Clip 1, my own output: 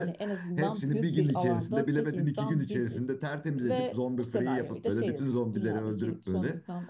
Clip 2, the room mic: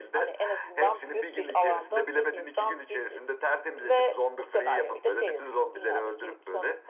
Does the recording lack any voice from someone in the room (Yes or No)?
Yes